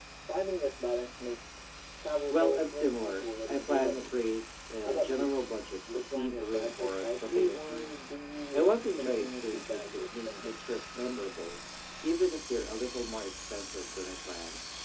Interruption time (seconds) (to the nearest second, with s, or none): 2 s